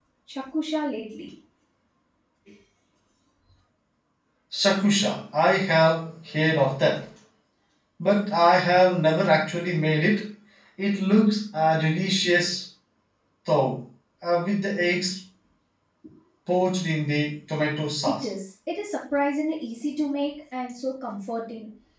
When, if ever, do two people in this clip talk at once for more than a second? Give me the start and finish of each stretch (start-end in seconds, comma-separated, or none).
none